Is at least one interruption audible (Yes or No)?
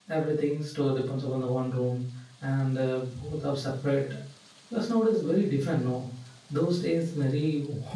No